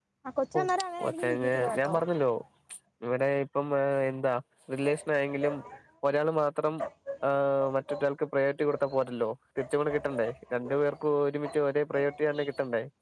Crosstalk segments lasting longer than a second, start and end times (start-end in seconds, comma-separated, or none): 0.6-1.9